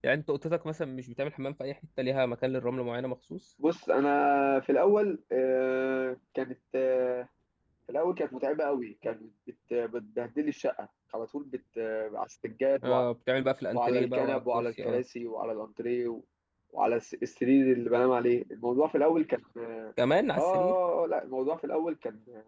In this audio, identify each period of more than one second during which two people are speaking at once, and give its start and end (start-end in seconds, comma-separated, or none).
13.7-15.0